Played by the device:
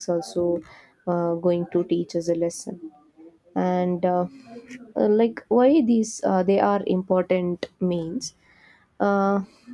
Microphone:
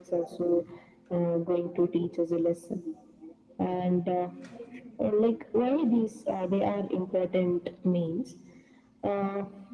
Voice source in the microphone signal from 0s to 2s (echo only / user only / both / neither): echo only